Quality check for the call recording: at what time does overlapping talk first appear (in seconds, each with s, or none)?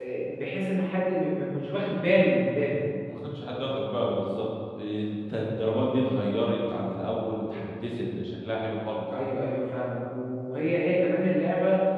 none